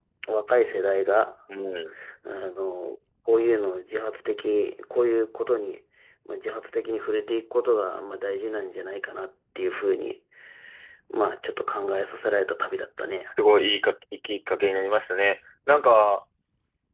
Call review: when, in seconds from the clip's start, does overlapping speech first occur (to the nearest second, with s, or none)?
none